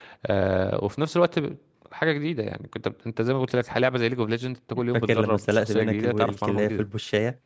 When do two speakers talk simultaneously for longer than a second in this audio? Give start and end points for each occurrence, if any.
4.9-6.8

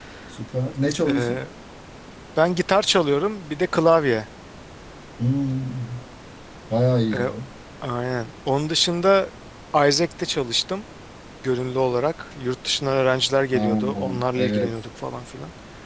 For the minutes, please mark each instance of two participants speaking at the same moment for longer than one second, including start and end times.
13.5-14.8

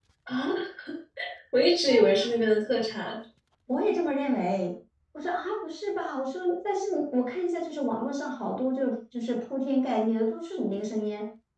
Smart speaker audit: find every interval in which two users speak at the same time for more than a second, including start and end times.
none

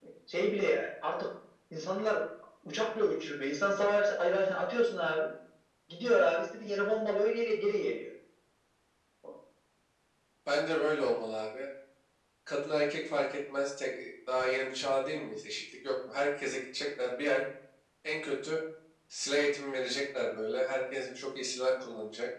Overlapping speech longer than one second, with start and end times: none

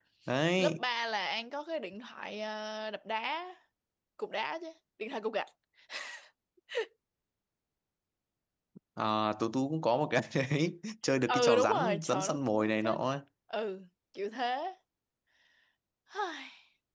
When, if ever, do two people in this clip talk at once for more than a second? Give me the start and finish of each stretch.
11.3-13.0

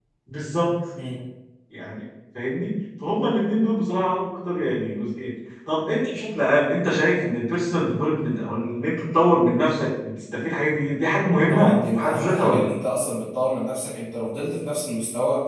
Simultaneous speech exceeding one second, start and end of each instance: 11.5-12.7

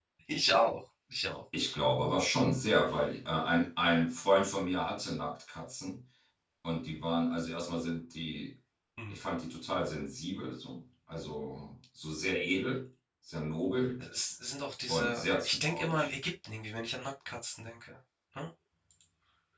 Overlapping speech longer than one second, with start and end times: 14.9-16.1

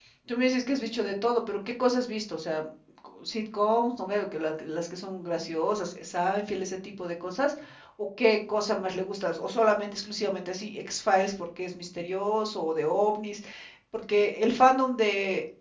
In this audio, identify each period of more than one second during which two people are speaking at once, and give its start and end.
none

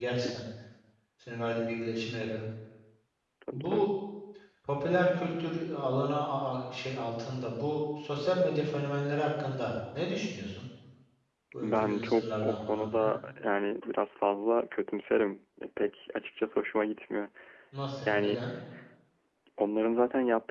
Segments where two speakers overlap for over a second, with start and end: 11.6-13.1

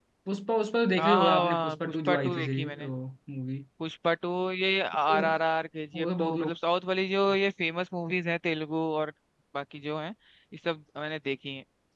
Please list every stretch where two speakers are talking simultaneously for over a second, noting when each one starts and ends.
1.0-2.9

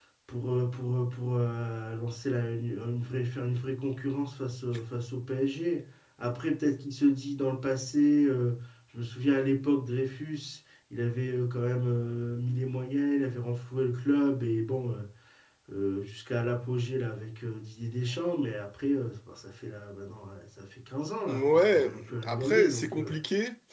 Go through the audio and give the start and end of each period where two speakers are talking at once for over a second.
21.3-23.1

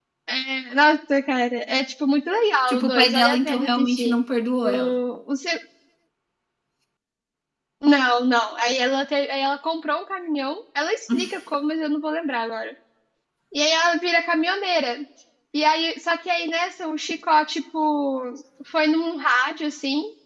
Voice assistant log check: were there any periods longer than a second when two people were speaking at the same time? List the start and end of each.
2.7-4.2

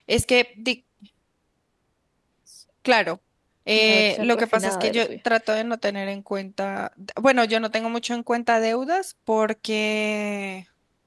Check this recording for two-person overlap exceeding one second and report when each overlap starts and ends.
3.7-5.2

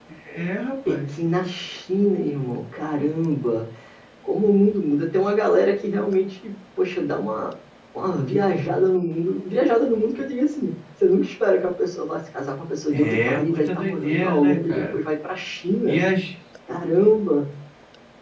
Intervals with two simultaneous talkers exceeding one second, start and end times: 12.9-15.0

